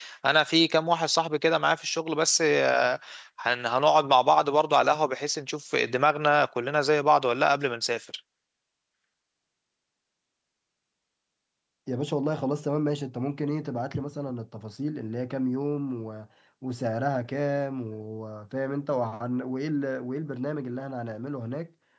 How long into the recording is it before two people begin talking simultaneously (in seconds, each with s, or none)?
none